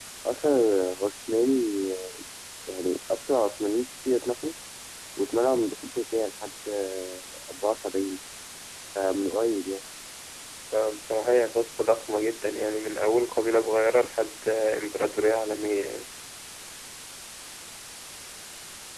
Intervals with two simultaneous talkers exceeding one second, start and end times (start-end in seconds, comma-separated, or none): none